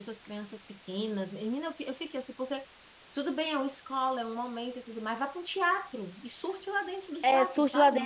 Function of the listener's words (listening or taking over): taking over